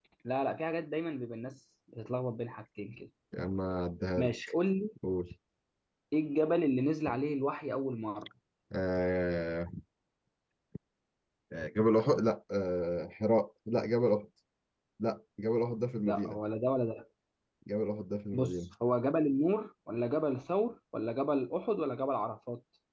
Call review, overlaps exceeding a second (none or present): none